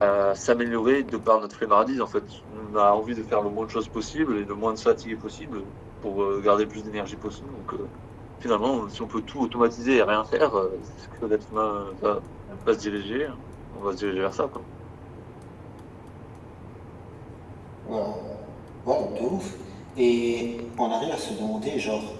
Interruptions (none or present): none